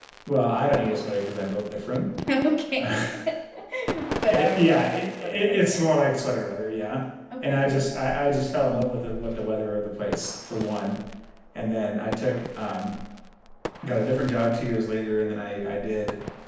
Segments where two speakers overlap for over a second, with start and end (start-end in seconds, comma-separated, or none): 4.3-5.9